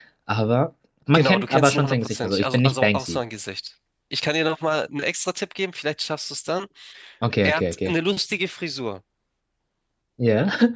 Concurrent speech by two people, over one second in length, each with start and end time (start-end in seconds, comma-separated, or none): 1.1-3.2